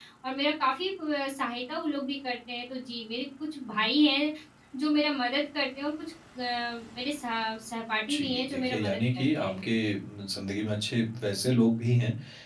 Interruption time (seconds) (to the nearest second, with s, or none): 8 s